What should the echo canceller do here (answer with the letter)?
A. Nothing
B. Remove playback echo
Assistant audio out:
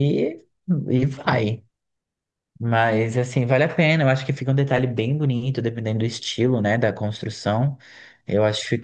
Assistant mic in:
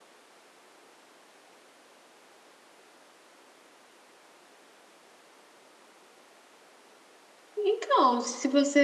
A